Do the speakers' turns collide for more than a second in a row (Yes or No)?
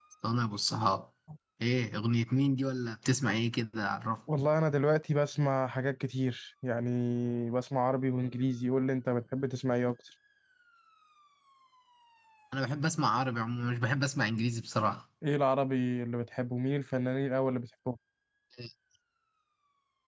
No